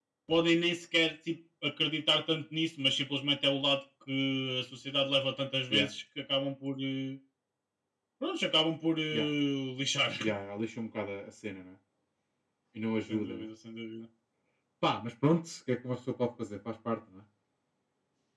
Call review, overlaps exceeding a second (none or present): none